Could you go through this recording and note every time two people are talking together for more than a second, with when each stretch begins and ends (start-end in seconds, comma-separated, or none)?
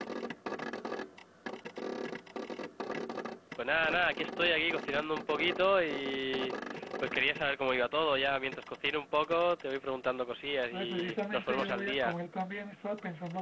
10.7-12.2